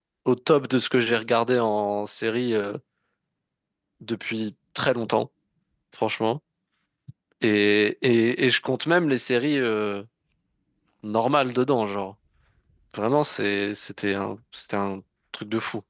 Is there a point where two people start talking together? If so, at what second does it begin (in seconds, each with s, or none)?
none